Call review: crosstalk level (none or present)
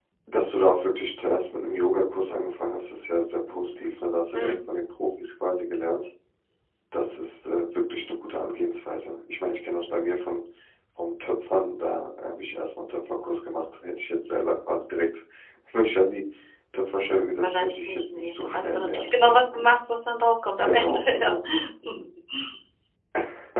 present